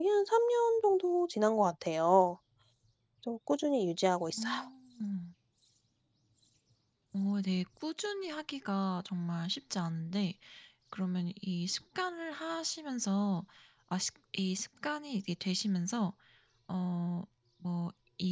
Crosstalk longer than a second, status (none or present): none